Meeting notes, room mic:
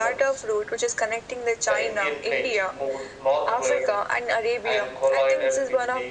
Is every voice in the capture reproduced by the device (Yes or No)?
Yes